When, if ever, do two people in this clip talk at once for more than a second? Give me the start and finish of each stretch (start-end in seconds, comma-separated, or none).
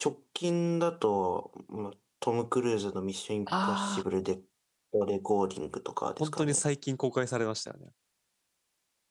none